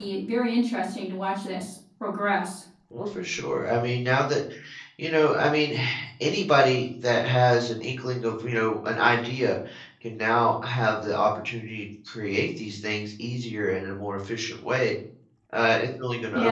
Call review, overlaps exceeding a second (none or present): none